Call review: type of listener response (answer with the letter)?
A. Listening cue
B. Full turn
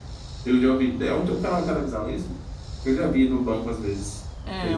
B